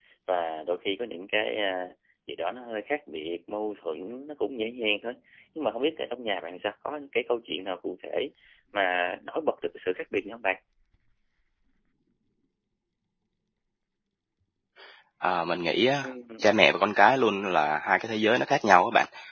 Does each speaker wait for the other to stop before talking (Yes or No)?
Yes